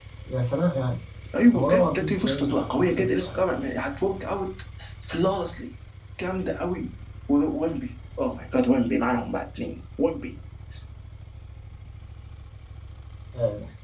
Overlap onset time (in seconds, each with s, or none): 1.5 s